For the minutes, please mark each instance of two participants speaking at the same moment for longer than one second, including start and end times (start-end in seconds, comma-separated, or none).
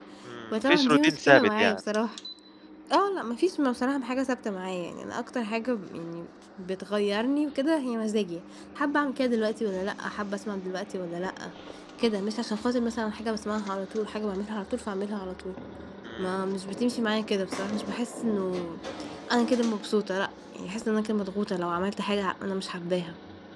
0.5-1.8